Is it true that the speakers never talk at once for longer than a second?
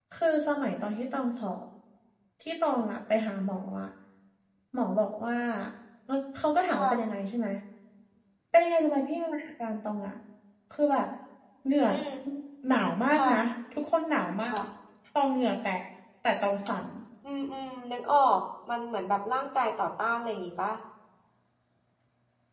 Yes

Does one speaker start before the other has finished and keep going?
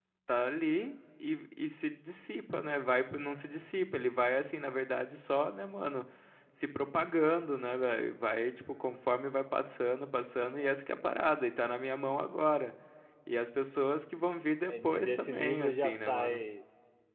Yes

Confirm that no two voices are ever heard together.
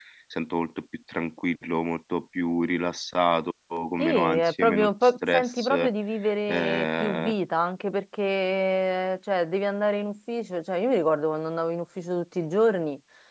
No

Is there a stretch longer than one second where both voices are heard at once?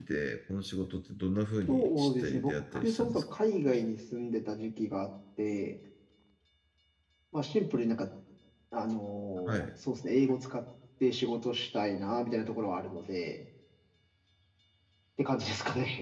Yes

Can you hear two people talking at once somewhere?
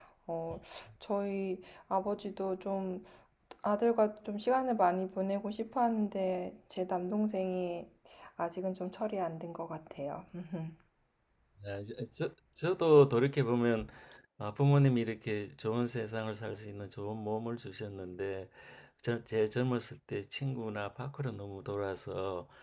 No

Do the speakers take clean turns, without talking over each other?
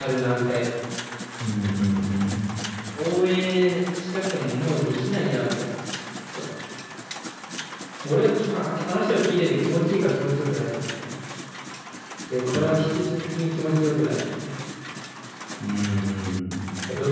Yes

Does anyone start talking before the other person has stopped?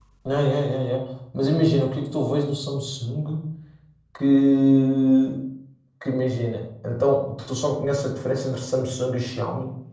No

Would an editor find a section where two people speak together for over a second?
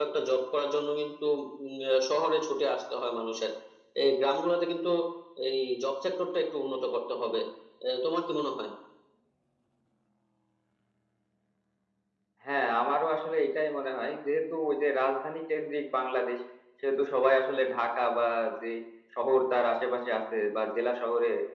No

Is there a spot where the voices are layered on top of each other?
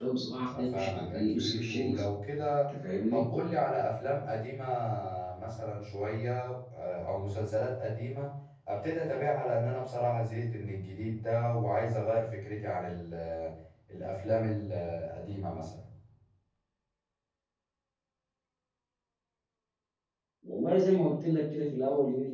Yes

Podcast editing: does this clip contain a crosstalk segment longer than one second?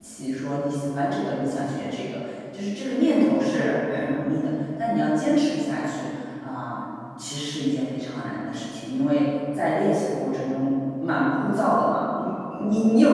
No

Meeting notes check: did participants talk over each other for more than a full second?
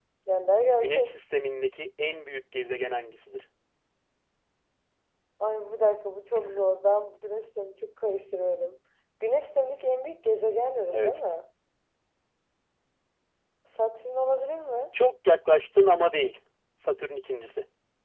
No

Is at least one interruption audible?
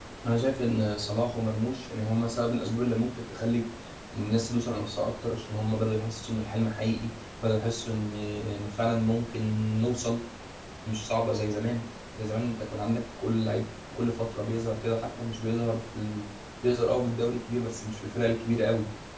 No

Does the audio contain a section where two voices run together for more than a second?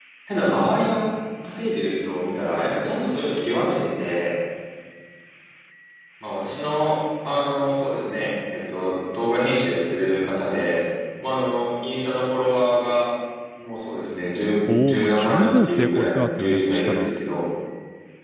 Yes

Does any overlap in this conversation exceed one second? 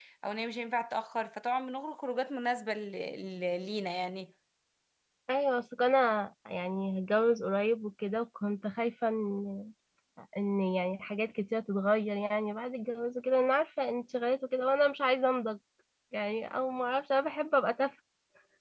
No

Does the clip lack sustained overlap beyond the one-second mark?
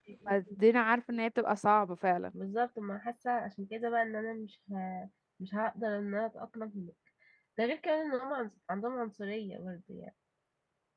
Yes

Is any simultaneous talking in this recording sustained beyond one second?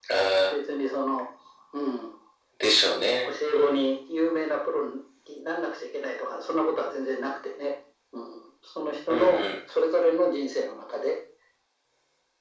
No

